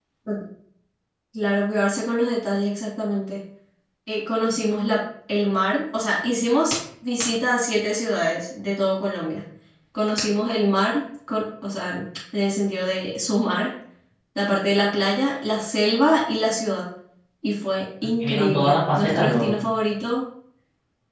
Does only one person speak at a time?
No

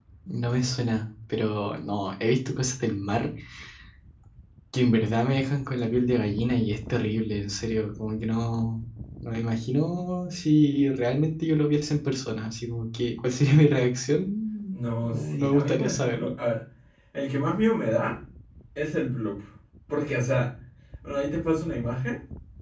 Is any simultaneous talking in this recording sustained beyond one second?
Yes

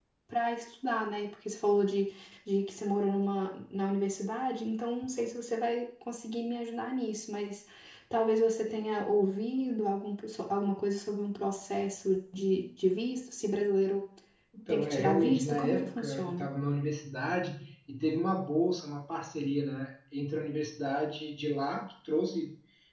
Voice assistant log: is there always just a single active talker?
No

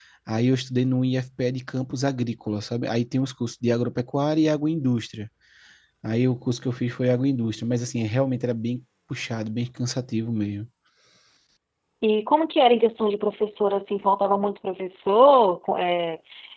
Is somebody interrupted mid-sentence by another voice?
No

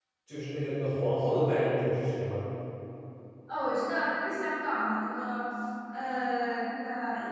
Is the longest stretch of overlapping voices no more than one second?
Yes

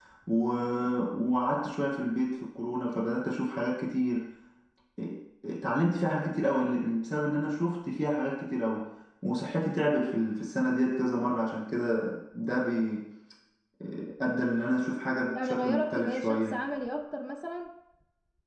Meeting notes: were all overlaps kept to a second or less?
No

